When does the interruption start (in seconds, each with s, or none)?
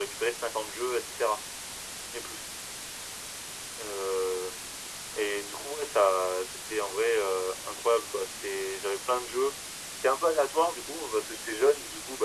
none